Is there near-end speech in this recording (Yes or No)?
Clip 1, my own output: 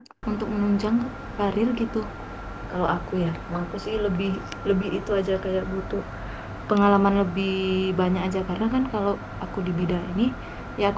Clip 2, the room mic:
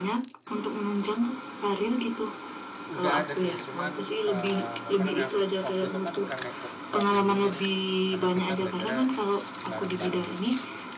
Yes